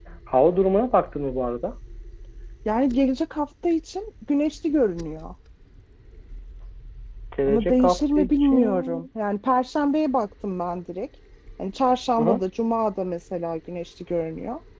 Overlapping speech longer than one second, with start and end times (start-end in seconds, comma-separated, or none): 7.5-9.1